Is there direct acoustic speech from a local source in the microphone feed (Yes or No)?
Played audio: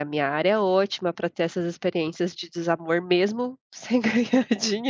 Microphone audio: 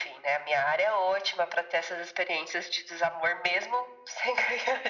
No